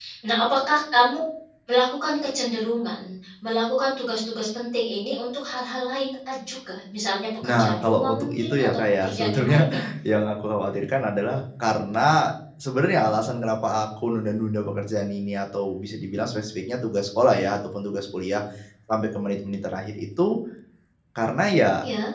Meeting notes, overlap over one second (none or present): present